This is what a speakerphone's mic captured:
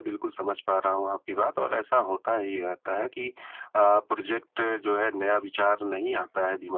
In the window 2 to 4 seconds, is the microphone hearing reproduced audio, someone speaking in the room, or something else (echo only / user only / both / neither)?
echo only